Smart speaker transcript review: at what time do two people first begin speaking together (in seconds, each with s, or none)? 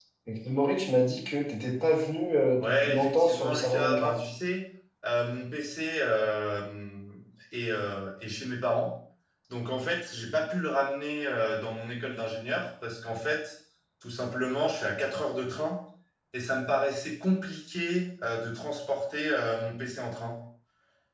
2.6 s